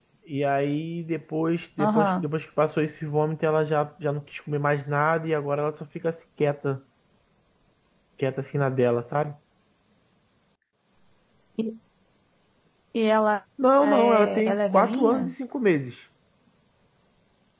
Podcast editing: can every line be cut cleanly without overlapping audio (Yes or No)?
No